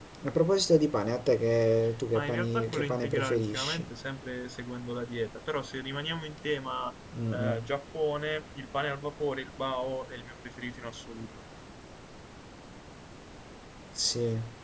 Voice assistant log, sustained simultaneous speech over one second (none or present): present